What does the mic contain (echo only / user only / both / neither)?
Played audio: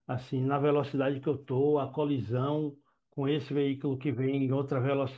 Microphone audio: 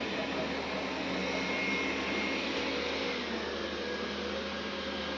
neither